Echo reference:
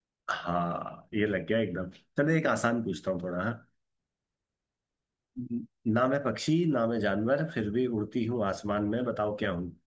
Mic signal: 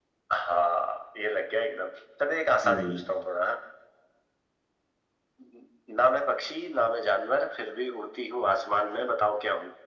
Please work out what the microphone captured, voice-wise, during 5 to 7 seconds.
echo only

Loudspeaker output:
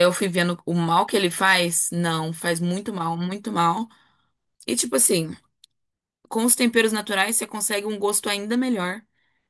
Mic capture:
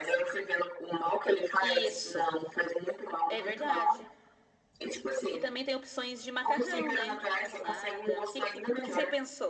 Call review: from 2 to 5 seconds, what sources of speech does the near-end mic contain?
both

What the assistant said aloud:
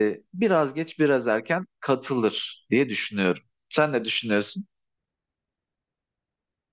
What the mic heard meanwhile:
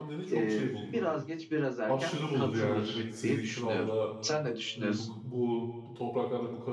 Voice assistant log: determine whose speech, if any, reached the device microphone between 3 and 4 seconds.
both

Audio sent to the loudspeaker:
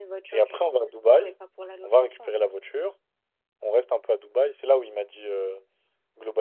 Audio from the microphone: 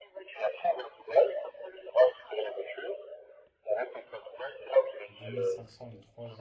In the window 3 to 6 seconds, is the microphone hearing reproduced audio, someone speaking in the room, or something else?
both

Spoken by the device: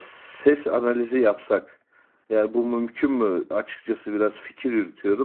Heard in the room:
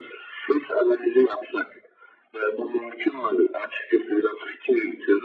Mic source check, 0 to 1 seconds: echo only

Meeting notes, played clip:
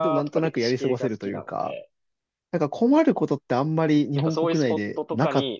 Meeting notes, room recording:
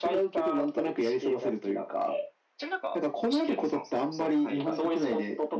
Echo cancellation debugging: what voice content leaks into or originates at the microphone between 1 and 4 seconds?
both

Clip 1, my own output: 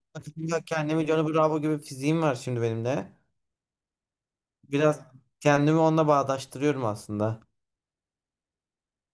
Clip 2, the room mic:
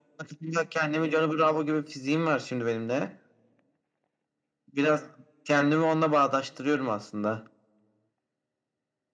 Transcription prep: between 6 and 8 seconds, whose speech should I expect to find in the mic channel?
echo only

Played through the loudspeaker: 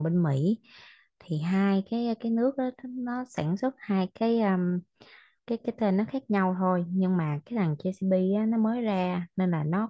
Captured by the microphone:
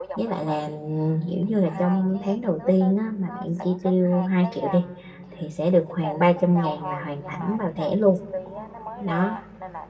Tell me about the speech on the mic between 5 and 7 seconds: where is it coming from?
both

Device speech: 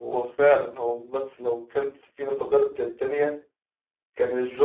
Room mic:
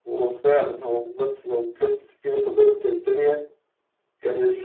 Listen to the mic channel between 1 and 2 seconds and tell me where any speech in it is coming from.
echo only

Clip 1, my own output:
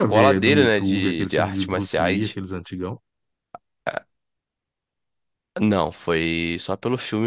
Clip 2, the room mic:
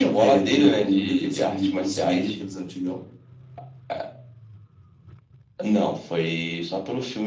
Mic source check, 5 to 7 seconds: echo only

